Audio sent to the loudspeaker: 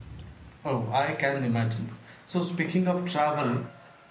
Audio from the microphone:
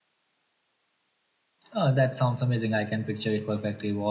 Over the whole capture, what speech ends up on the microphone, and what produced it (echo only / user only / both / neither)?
user only